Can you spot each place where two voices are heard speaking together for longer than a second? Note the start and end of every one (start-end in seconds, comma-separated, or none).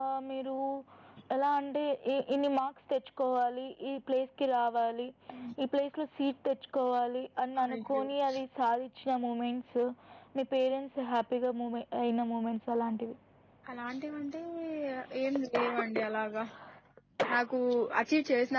none